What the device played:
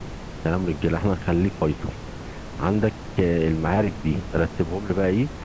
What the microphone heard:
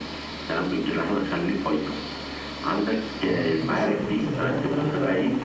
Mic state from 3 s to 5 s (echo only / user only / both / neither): both